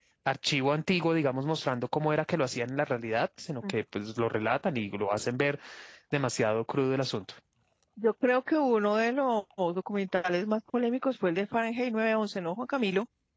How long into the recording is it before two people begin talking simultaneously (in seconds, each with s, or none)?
none